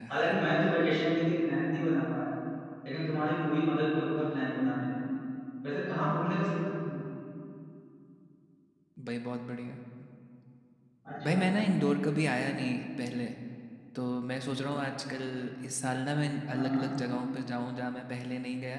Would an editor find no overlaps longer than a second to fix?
Yes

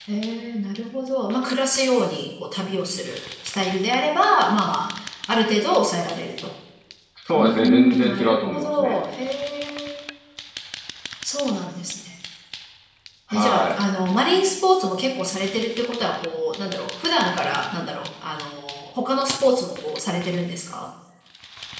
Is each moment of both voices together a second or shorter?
No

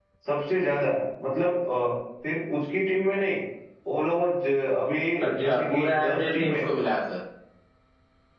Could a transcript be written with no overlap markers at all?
No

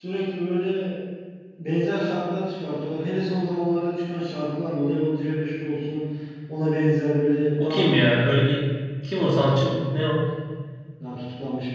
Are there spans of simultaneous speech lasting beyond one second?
No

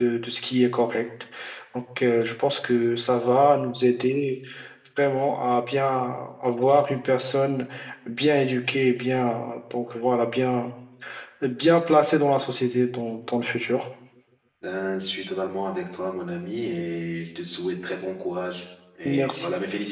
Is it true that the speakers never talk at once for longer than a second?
Yes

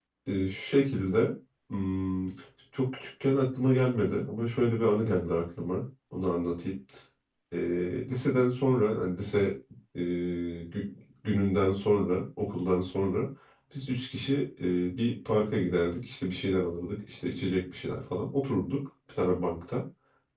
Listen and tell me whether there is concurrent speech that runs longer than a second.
No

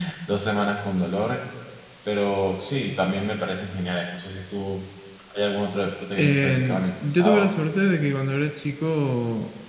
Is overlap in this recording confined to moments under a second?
No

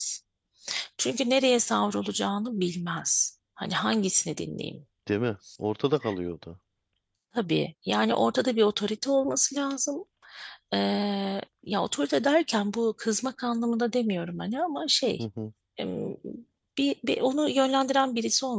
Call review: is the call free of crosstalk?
Yes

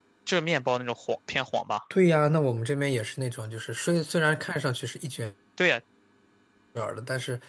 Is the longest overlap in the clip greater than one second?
No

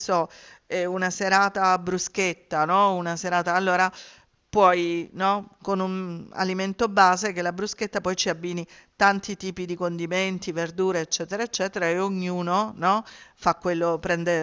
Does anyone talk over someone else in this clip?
No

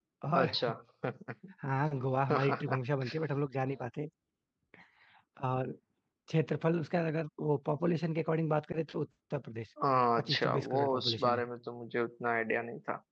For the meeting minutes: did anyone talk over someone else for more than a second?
Yes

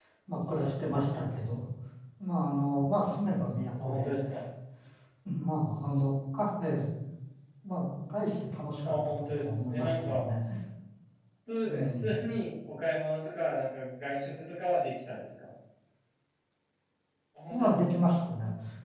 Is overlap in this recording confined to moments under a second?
No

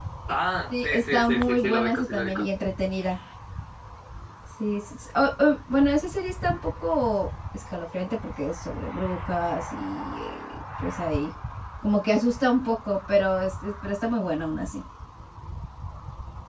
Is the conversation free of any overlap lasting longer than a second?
No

